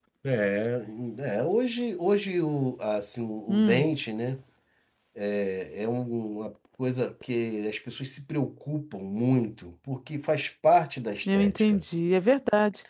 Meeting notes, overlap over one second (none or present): none